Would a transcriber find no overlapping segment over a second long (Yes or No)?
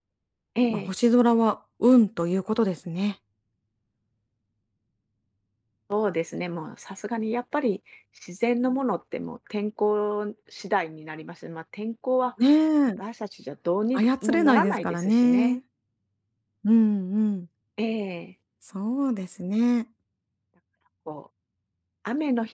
No